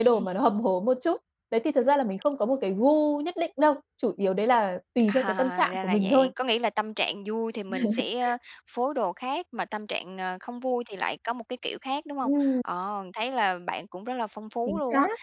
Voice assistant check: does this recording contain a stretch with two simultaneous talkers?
Yes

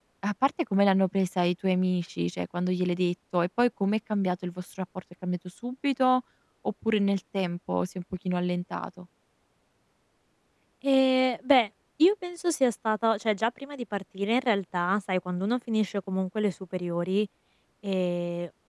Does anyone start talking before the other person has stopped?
No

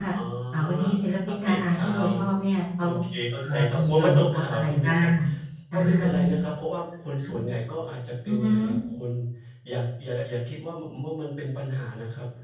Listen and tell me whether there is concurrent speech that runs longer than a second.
Yes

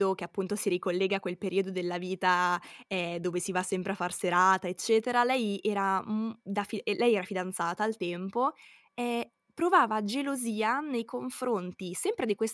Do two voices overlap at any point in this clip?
No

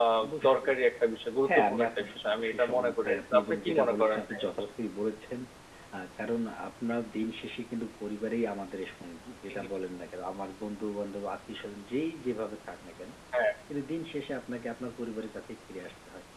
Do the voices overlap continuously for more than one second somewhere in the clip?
Yes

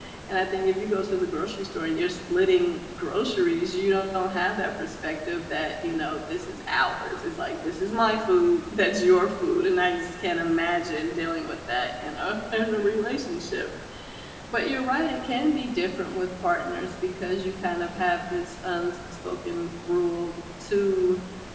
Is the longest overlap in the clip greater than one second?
No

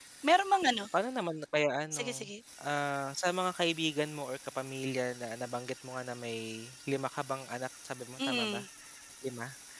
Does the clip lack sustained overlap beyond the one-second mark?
Yes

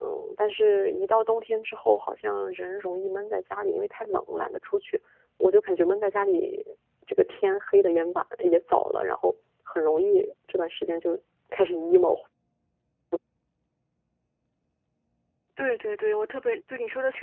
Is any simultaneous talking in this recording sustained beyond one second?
No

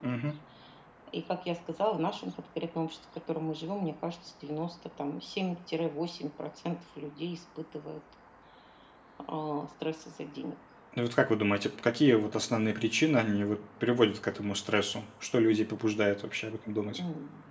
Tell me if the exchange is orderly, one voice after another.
Yes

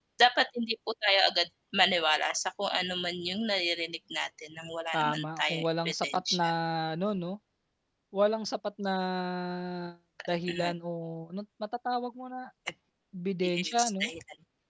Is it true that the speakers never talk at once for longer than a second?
No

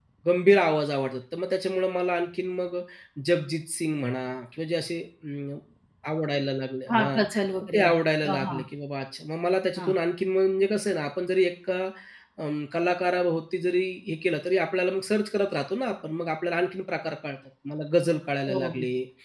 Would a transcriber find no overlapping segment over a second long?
Yes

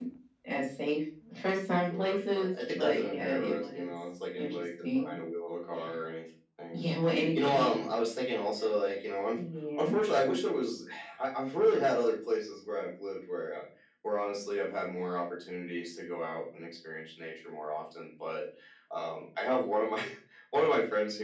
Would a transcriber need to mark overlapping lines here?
Yes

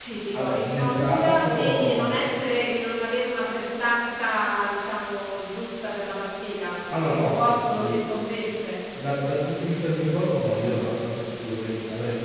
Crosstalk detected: Yes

